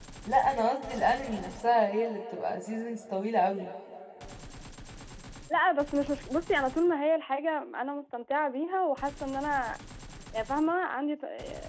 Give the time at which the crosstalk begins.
none

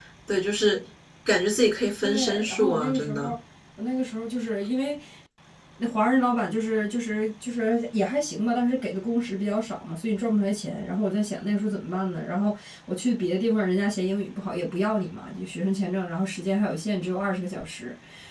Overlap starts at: 2 s

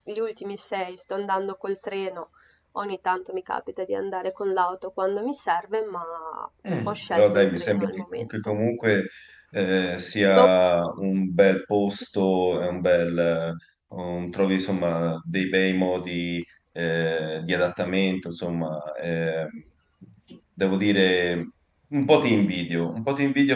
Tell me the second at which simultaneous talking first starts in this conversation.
7 s

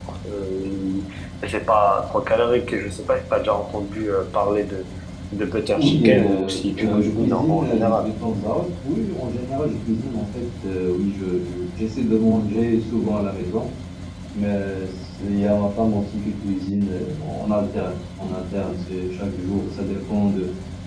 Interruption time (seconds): 6 s

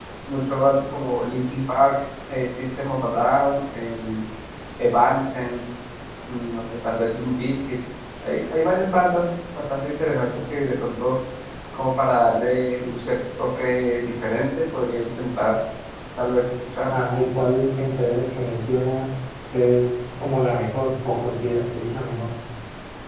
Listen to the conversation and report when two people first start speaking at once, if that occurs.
none

